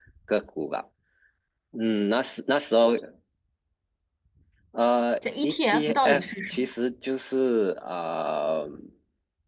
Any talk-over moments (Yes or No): Yes